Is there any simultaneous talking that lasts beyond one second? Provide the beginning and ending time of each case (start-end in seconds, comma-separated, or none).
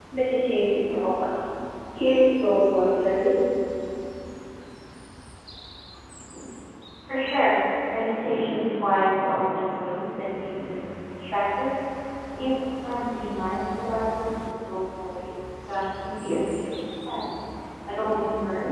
none